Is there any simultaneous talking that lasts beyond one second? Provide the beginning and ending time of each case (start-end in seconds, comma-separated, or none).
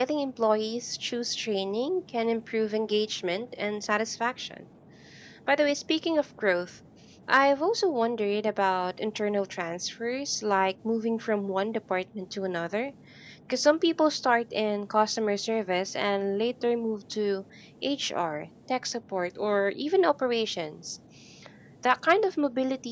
none